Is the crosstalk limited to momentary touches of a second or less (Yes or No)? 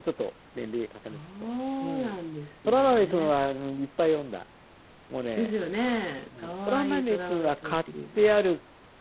No